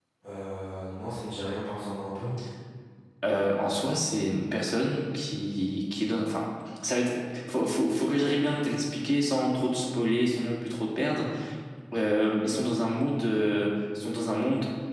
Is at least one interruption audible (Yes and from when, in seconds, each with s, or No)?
No